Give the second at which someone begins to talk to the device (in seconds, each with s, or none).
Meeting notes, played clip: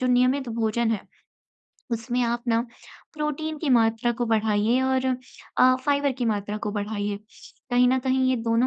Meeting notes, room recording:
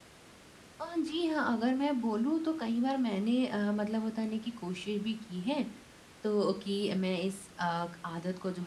0.8 s